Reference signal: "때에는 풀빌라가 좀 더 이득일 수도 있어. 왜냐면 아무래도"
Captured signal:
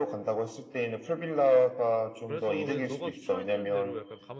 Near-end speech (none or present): present